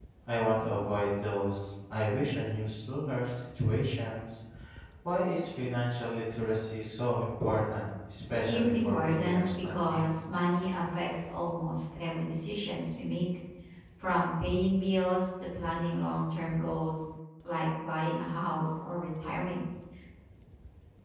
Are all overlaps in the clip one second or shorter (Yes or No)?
No